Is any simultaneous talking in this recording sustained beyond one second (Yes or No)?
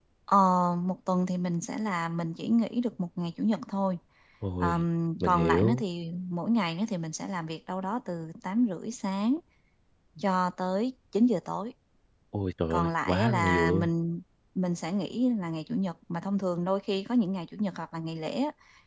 Yes